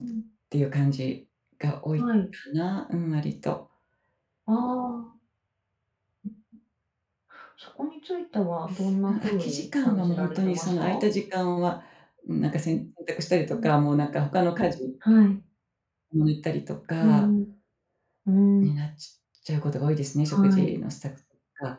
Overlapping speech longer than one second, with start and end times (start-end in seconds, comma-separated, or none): 9.1-11.0